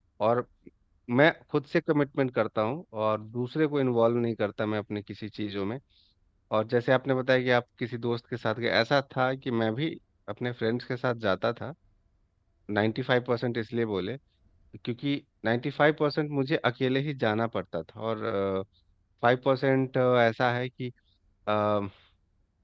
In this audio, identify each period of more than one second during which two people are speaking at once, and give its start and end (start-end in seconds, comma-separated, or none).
none